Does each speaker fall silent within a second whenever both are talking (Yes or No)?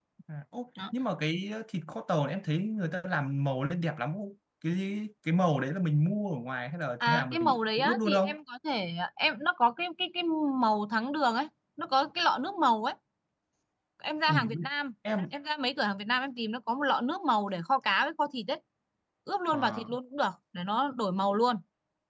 No